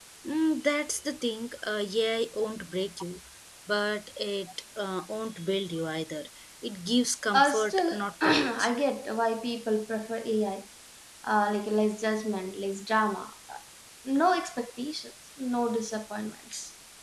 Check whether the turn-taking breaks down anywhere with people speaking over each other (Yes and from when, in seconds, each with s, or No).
Yes, from 7.3 s